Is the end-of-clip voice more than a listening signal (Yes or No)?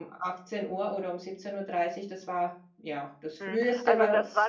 Yes